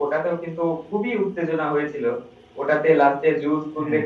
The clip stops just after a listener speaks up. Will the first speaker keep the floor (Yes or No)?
Yes